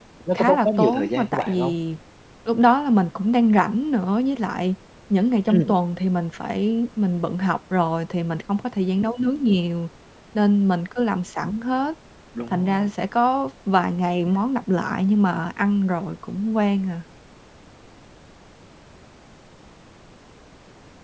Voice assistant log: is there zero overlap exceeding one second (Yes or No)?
No